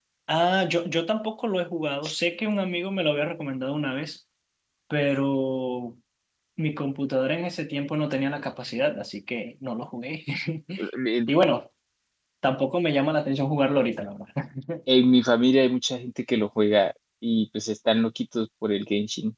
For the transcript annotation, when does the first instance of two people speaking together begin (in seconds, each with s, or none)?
none